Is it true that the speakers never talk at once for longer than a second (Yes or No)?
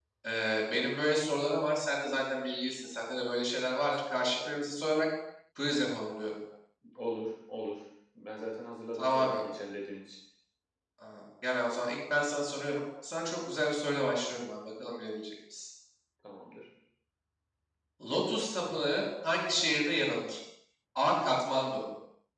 Yes